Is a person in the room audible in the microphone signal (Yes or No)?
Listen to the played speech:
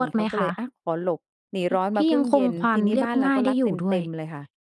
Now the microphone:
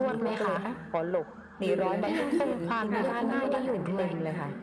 Yes